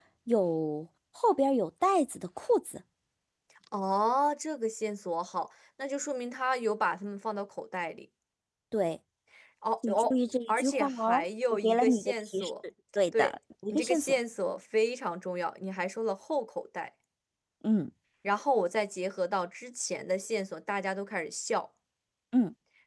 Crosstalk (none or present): present